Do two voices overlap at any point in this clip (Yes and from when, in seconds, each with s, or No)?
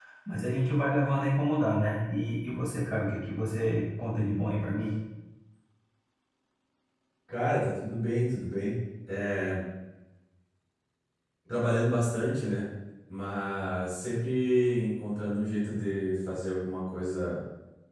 No